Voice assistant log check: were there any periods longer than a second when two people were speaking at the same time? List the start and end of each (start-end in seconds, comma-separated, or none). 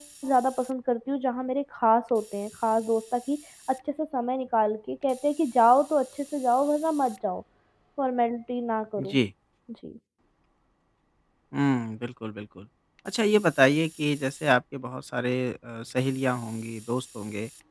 none